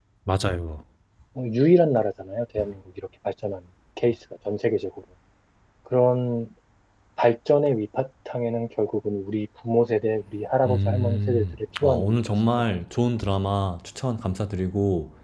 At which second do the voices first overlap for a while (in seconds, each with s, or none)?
10.7 s